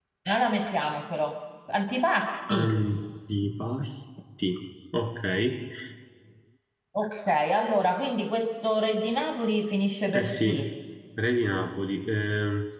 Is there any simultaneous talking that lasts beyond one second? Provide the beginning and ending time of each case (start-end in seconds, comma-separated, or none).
none